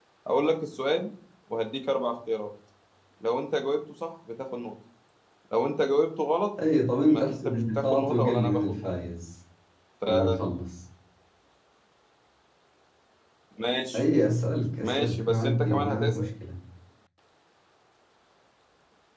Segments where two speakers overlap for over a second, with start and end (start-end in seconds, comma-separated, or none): 7.0-8.9, 14.8-16.3